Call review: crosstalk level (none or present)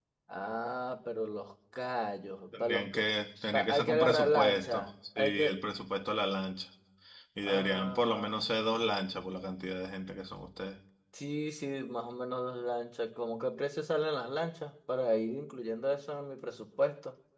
present